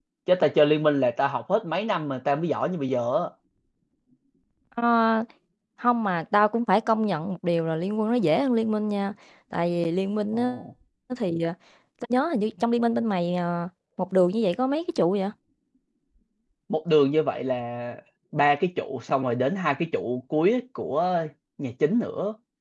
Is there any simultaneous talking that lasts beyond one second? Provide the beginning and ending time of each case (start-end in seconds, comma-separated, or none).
none